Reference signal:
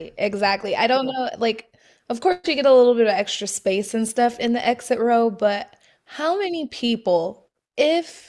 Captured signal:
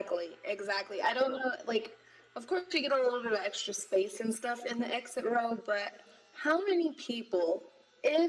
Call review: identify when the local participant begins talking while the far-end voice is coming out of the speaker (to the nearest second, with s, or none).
none